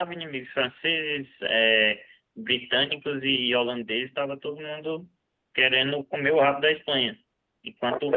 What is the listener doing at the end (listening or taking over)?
taking over